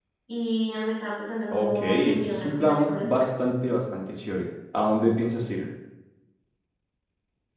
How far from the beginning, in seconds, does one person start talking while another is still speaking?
1.5 s

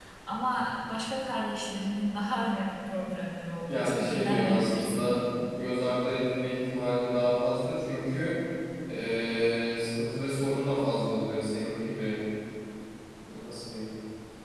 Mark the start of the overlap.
3.7 s

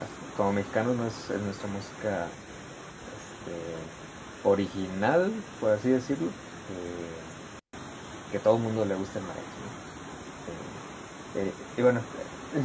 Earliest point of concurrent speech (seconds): none

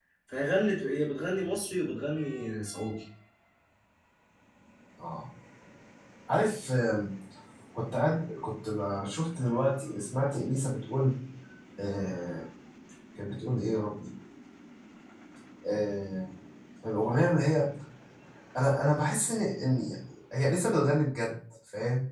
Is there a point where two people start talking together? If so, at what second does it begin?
none

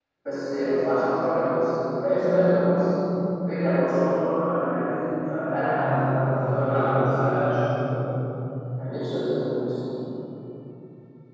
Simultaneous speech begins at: 5.4 s

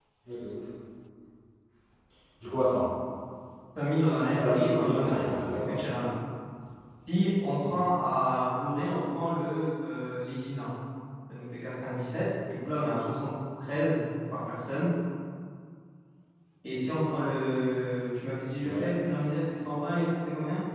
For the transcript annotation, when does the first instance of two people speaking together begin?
4.3 s

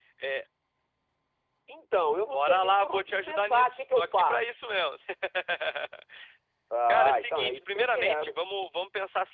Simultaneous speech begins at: 2.3 s

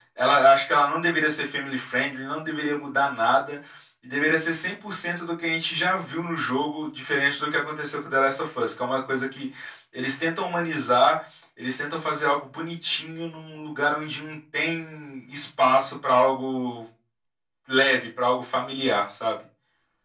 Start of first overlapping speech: none

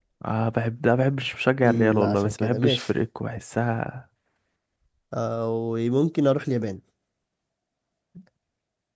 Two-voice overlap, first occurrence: 1.6 s

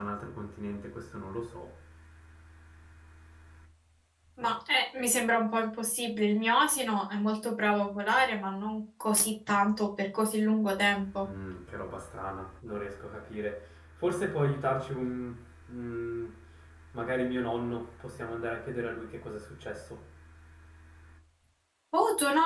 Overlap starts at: none

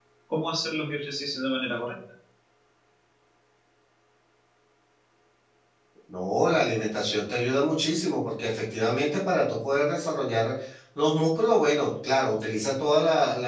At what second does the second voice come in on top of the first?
none

